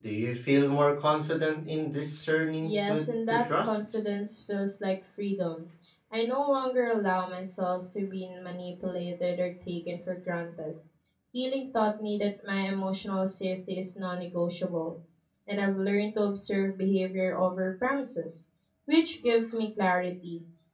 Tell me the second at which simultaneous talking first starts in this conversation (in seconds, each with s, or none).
2.6 s